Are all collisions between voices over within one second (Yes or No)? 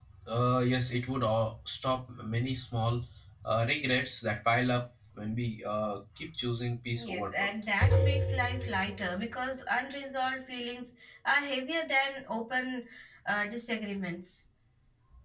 Yes